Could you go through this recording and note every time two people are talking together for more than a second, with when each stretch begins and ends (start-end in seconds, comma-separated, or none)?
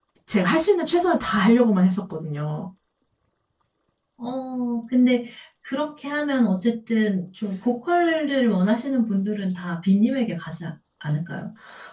none